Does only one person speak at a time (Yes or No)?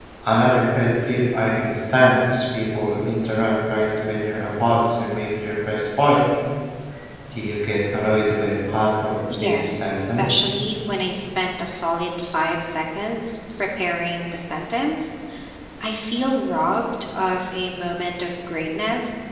No